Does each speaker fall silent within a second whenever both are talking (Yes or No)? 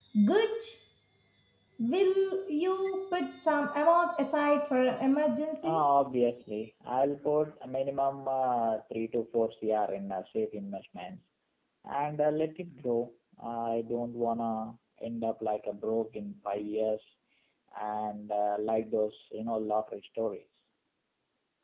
Yes